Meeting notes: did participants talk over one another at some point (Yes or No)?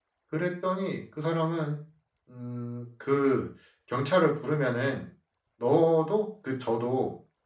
No